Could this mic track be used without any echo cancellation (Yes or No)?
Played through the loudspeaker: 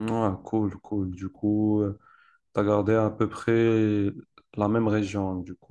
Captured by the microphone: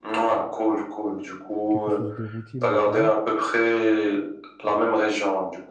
No